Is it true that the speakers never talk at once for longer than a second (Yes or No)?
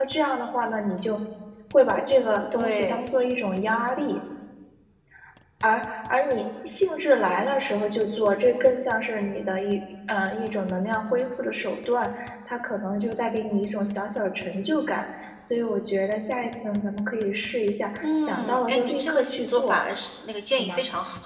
No